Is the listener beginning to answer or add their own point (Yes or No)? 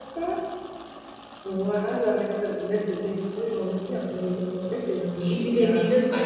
Yes